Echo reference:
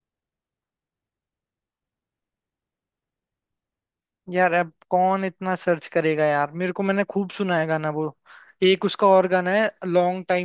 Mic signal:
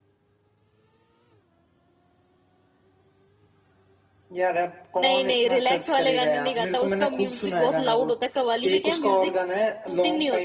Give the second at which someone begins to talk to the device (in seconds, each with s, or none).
5.0 s